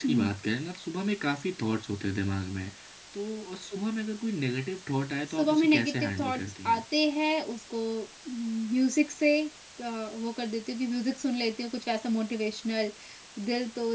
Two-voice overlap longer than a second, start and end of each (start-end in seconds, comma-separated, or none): 5.4-6.8